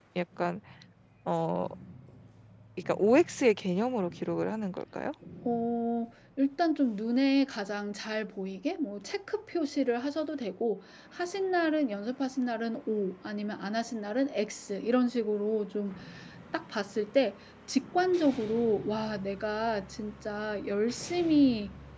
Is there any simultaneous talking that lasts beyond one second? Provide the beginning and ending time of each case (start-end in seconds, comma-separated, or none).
none